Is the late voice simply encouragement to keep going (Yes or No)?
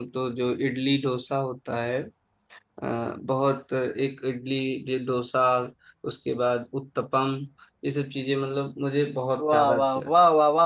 No